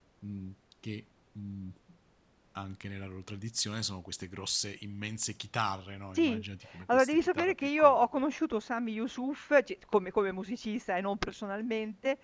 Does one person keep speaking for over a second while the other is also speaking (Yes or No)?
Yes